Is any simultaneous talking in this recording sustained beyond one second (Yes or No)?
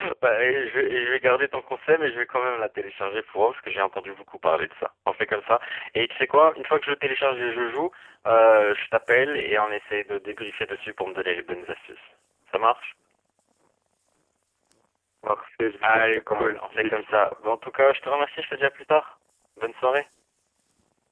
Yes